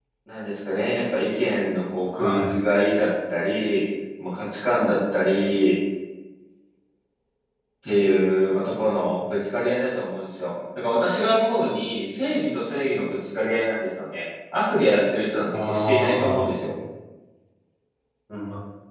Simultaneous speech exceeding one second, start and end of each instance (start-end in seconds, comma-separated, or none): 15.5-16.7